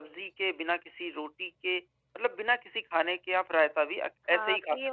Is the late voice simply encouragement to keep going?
No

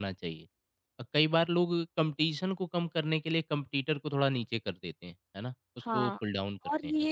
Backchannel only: No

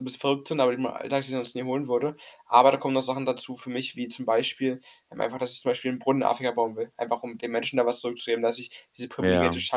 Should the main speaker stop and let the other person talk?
No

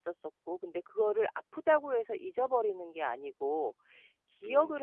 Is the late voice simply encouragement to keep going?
Yes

